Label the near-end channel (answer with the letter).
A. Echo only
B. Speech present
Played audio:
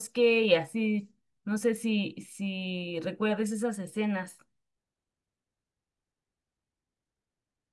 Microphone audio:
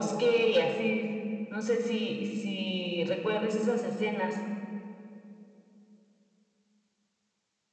A